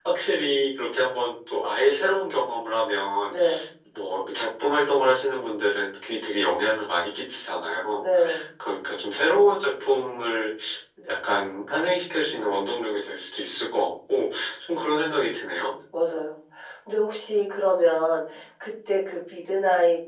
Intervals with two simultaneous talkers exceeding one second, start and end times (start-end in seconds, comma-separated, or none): none